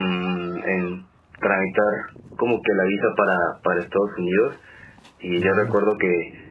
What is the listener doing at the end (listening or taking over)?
listening